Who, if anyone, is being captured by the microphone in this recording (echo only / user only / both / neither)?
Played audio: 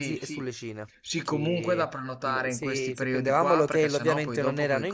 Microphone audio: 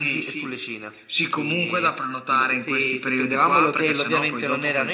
echo only